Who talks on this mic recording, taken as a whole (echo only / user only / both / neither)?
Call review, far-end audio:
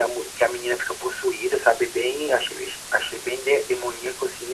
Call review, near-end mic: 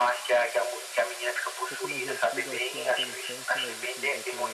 both